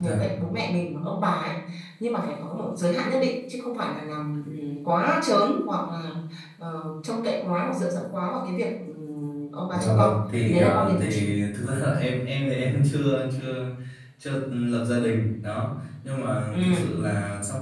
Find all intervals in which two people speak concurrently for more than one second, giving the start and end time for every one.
9.8-11.3

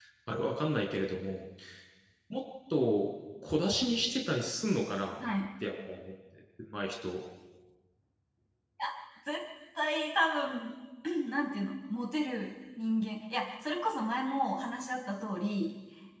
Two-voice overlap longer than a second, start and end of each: none

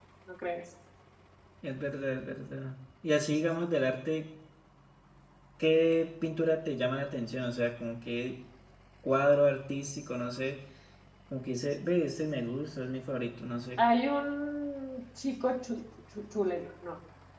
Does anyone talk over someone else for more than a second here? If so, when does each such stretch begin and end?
none

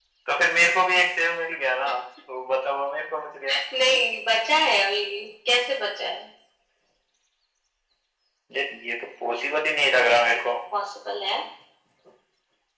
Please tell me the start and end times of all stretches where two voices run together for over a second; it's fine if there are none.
none

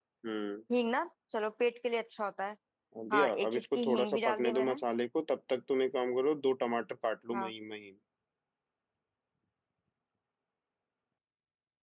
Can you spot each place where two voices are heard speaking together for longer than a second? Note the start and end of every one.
3.1-4.8

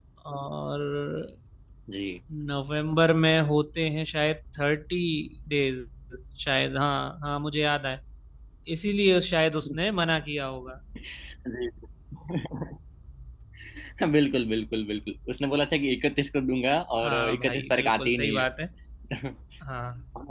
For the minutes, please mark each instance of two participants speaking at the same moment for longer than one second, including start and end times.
17.0-18.4

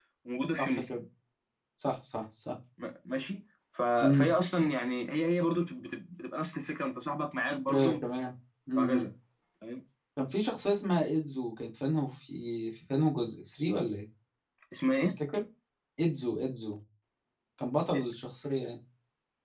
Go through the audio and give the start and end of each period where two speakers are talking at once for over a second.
none

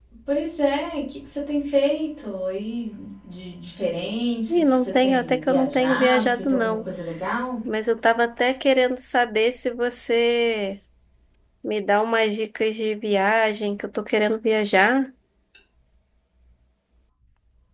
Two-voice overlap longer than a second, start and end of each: 4.5-6.9

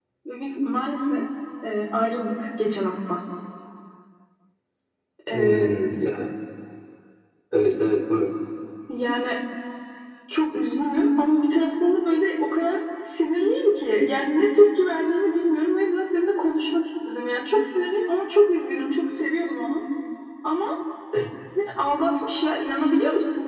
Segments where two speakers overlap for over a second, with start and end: none

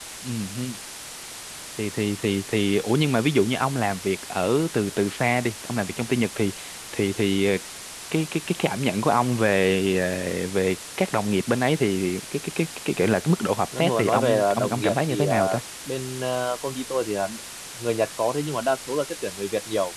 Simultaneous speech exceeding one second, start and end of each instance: 13.8-15.4

